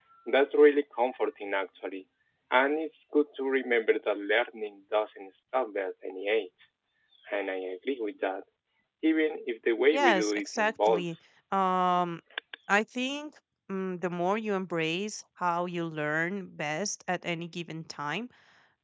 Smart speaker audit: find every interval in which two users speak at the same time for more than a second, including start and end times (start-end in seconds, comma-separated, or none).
9.9-11.2